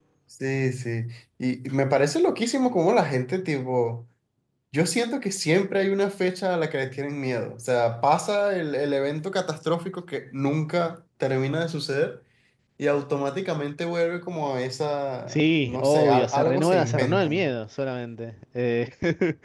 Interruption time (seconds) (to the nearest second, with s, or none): 15 s